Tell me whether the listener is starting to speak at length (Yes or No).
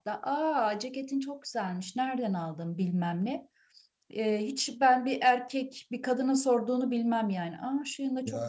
Yes